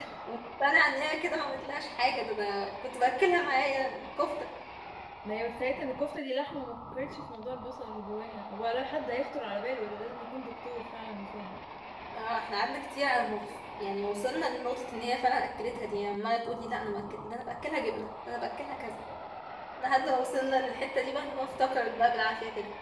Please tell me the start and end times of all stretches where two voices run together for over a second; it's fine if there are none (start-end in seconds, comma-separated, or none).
none